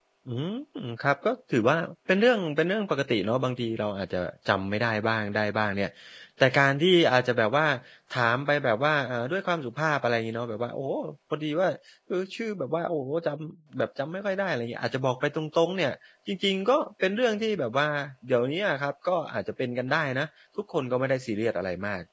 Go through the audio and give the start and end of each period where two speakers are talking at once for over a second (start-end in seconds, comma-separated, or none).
none